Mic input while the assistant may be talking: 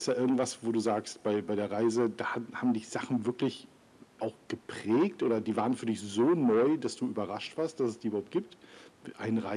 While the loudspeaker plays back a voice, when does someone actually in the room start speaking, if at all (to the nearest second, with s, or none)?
none